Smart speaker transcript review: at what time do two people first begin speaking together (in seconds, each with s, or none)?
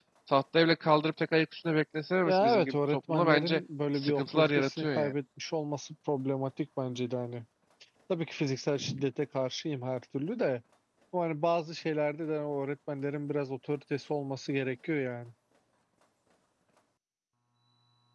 2.2 s